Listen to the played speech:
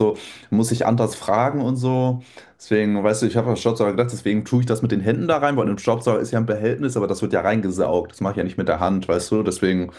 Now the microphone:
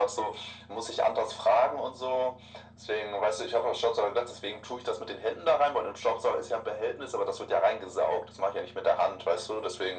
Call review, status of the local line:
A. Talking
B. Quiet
B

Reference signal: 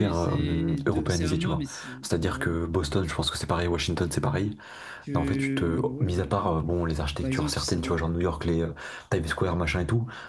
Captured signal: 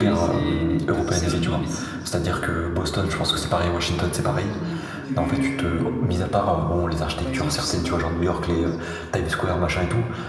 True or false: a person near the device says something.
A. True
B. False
A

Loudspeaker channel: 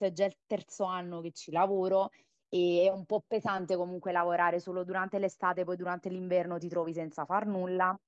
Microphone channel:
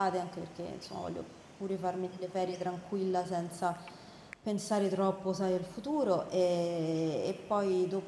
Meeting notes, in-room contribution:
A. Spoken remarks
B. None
A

